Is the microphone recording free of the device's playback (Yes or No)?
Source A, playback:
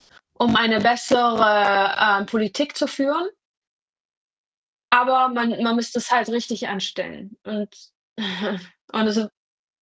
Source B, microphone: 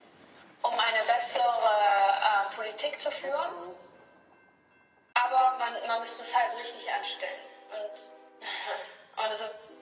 No